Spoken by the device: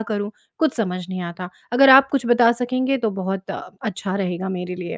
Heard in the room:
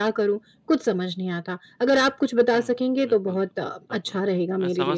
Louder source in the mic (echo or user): echo